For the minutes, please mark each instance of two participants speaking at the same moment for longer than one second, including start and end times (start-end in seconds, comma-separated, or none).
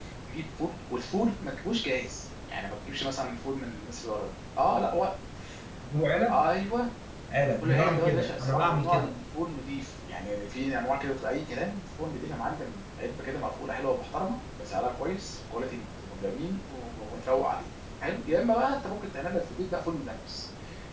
7.6-9.1